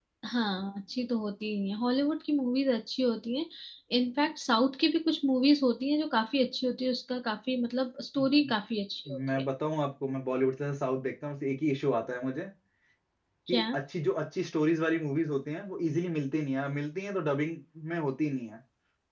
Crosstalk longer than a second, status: none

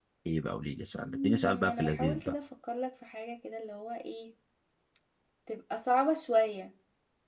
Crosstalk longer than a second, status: present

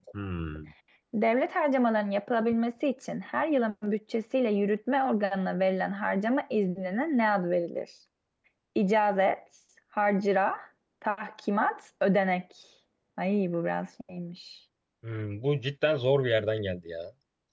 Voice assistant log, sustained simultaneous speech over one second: none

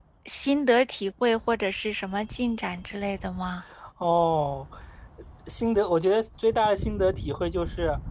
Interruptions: none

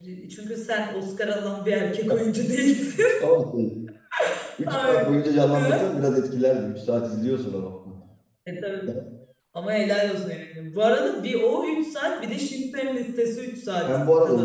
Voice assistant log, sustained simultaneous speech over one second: none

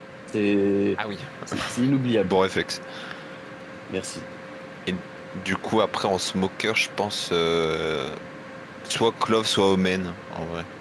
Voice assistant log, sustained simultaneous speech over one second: none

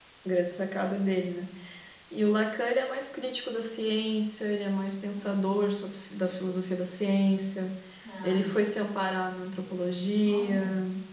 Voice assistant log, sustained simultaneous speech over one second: none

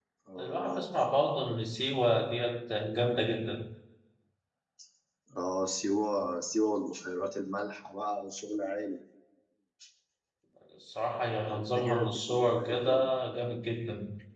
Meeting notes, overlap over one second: present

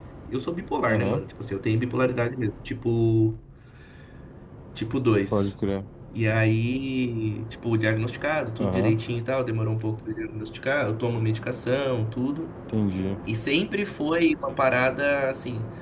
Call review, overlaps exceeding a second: none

